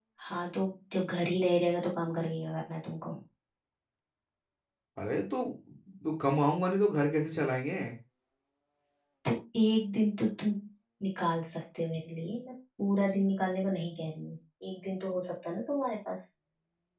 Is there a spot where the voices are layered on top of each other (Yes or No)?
No